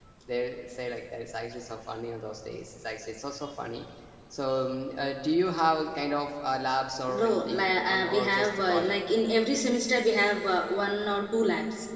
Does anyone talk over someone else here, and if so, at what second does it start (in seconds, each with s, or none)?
7.1 s